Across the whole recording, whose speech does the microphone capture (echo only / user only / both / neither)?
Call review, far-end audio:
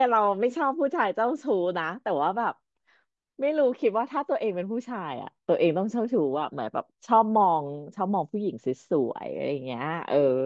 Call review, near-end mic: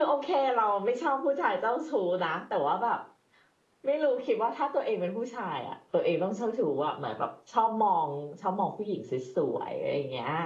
echo only